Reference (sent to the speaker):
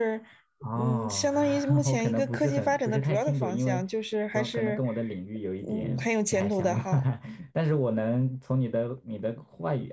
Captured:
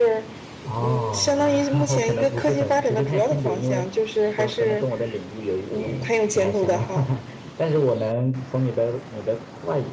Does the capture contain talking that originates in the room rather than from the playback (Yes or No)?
No